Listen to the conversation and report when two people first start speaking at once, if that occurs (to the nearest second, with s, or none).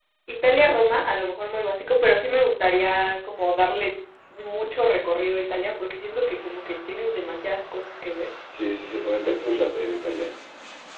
none